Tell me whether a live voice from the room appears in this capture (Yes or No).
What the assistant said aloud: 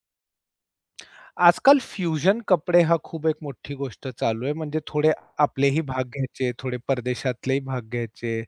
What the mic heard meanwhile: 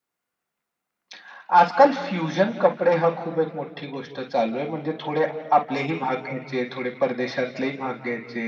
No